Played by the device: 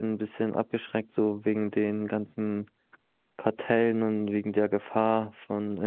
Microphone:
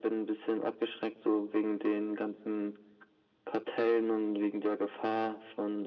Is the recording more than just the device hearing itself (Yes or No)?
No